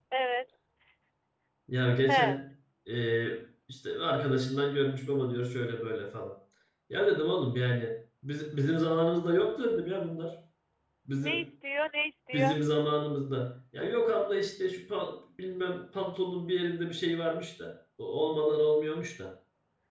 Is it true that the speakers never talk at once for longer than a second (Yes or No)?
Yes